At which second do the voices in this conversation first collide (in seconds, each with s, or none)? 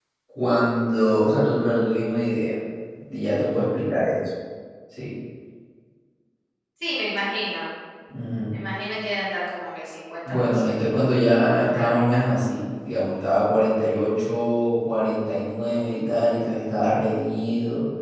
10.2 s